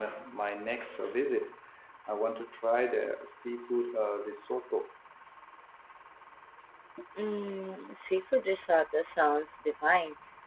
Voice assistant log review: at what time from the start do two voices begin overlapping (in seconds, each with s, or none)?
none